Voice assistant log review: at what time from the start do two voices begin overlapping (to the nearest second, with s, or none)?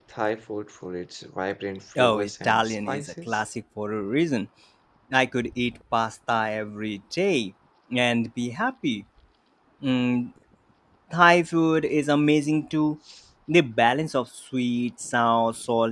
2 s